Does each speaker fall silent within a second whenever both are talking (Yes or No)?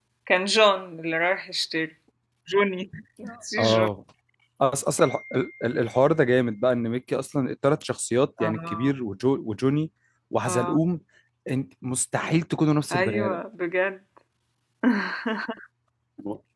Yes